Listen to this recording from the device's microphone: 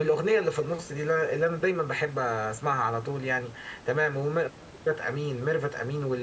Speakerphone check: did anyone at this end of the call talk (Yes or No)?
Yes